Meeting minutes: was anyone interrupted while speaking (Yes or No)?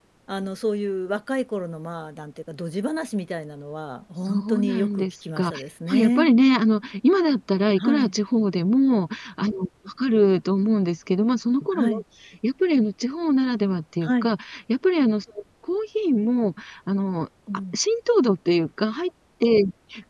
Yes